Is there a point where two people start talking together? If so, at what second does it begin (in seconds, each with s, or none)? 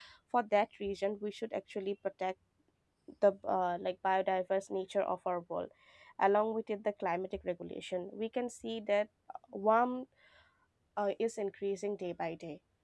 none